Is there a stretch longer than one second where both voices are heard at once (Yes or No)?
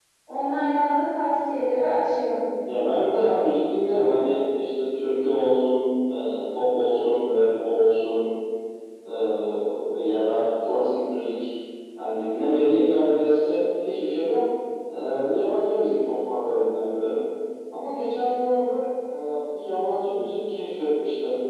No